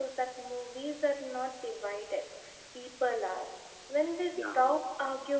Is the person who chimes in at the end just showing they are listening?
Yes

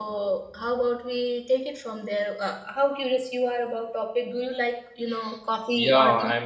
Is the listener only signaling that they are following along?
No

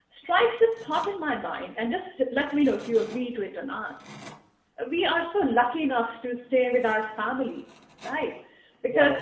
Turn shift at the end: No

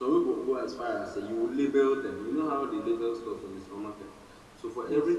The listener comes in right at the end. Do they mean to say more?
No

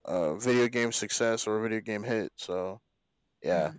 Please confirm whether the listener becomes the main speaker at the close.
No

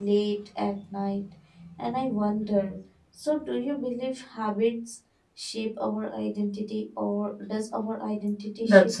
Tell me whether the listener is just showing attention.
No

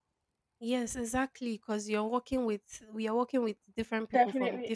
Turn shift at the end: Yes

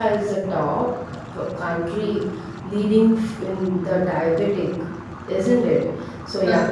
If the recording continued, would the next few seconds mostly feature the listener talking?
No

